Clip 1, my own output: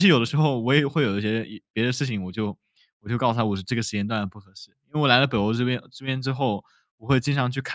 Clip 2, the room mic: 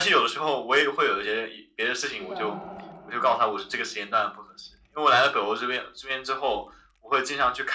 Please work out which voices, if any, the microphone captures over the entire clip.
both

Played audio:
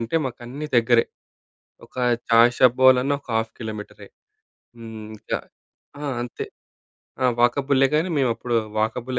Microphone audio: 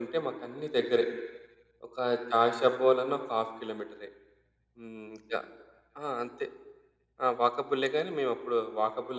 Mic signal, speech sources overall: echo only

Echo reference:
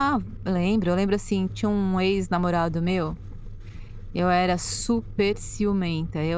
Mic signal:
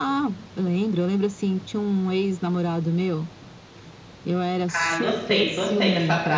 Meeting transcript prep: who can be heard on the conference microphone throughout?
both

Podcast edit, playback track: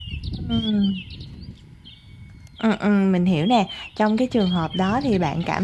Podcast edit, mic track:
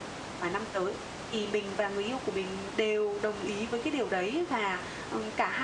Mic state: user only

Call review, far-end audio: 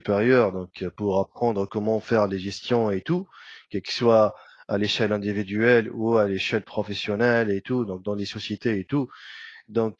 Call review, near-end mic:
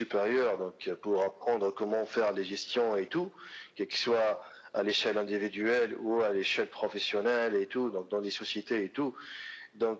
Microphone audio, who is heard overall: echo only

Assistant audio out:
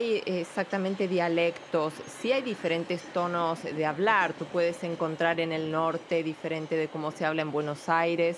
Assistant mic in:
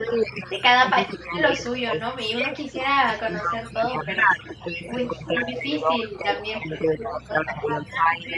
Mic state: both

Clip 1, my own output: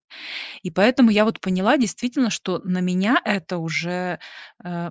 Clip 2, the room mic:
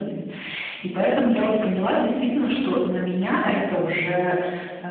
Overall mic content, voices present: echo only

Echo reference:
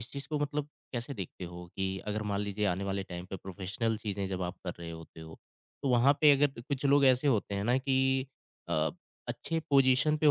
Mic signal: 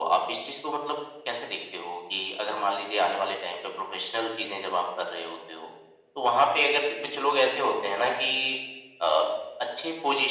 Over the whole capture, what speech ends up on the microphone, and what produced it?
echo only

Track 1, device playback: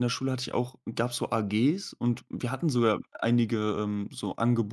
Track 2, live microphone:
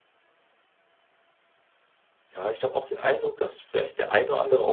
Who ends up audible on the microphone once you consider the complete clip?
user only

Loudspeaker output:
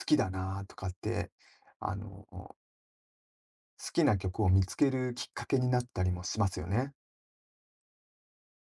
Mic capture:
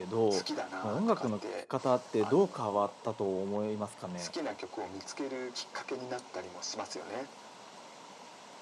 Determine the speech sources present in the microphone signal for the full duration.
both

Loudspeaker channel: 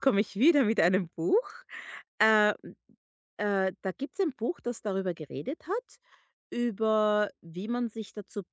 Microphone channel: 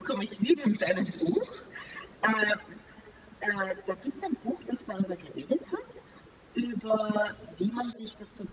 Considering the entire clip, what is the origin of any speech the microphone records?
echo only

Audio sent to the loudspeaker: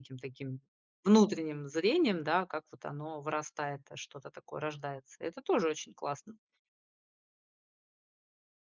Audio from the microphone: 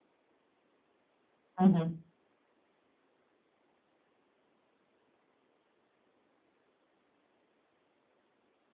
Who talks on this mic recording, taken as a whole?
user only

